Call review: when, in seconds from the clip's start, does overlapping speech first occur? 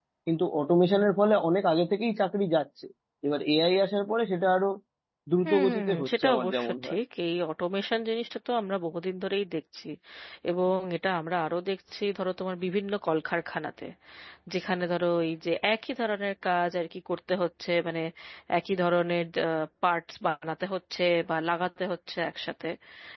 5.5 s

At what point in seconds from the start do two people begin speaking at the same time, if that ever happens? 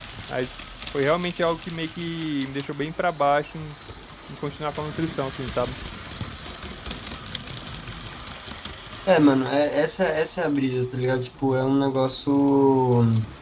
none

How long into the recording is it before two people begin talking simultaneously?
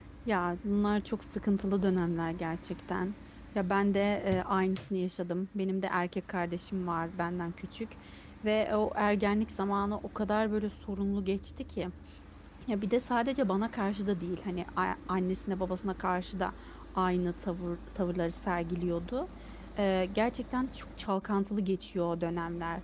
none

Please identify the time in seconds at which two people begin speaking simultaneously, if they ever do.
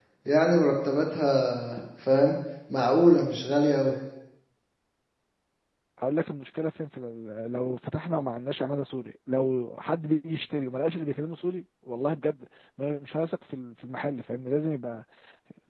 none

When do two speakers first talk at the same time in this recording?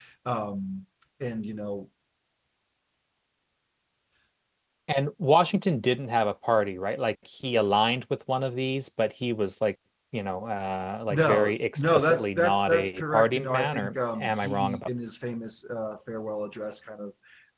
11.1 s

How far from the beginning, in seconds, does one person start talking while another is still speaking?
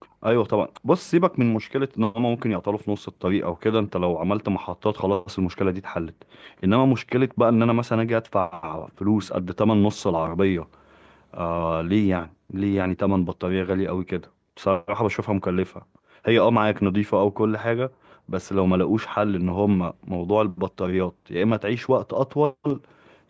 none

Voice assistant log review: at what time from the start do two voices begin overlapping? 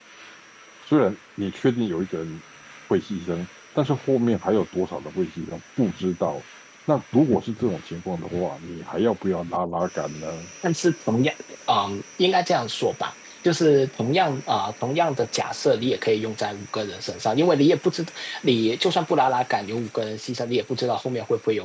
none

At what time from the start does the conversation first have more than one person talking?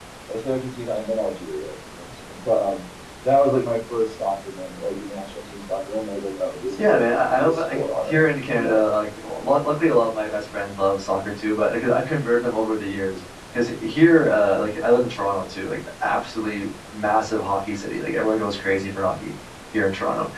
6.8 s

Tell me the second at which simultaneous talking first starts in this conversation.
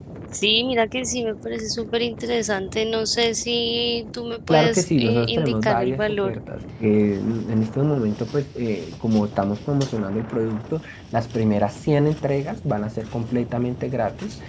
4.5 s

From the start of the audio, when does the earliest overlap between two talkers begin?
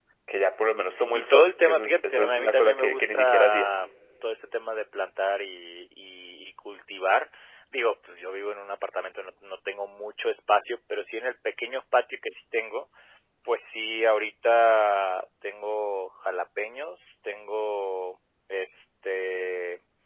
1.1 s

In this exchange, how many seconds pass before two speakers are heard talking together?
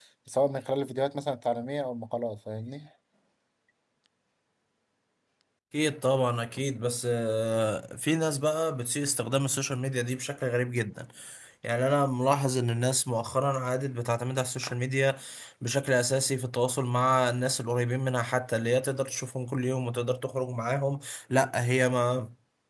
none

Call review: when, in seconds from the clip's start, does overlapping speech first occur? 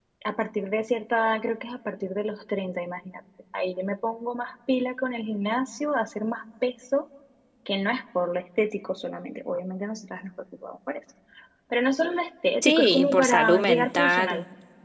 12.6 s

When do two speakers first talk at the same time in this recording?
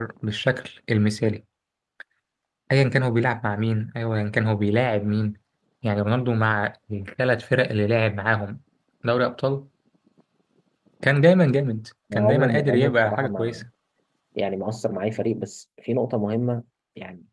12.1 s

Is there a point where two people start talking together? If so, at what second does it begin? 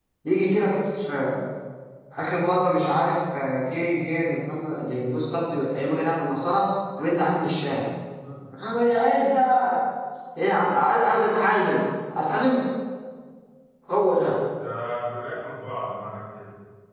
none

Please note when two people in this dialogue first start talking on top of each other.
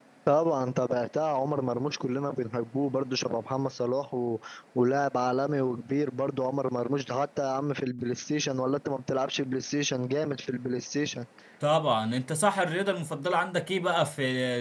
none

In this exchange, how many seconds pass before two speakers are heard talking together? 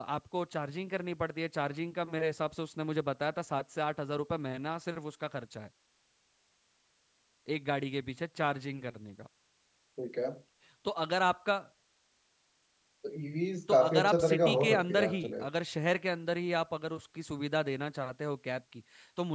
13.7 s

